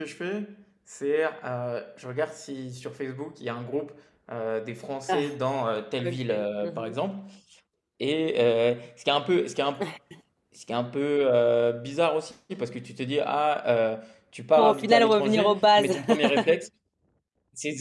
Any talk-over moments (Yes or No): Yes